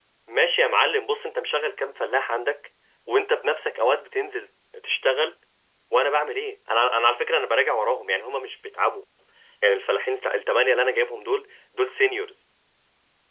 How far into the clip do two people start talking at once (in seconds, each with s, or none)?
none